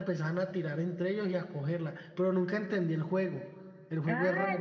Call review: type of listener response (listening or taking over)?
taking over